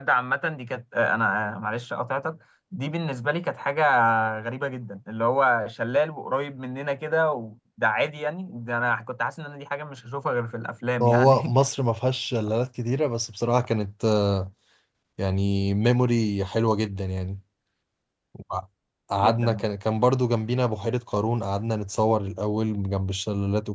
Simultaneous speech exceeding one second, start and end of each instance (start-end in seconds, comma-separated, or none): none